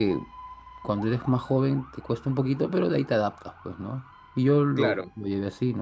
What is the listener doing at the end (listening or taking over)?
listening